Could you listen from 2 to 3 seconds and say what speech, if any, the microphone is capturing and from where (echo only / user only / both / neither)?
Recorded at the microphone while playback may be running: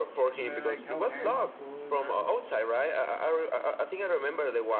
both